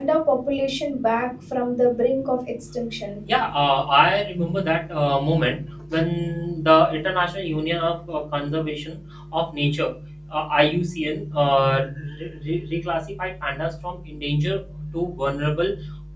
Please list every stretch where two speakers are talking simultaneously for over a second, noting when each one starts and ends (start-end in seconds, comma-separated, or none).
none